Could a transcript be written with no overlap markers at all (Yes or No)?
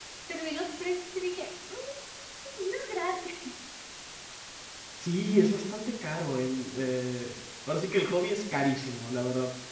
Yes